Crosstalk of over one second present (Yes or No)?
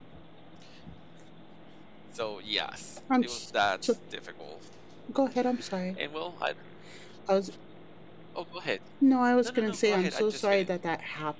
Yes